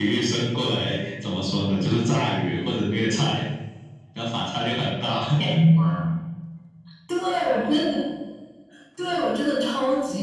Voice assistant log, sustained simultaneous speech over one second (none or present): none